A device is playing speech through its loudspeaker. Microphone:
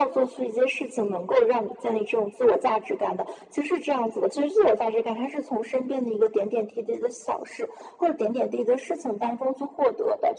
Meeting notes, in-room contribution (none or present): none